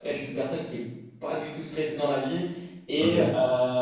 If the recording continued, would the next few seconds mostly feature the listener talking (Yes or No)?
No